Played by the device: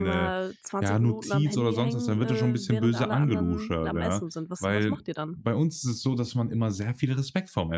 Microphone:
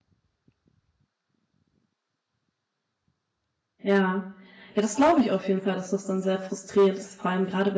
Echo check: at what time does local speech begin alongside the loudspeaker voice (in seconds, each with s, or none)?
3.8 s